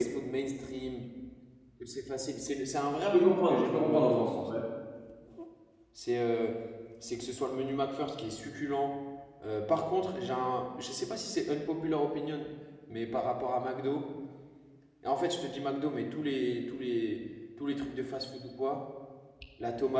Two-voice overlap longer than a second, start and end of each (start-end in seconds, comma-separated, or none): 3.0-4.3